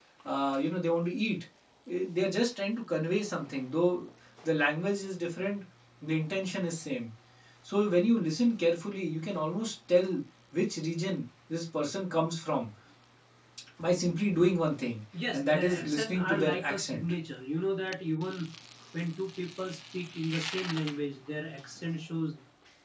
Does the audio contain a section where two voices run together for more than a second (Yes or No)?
Yes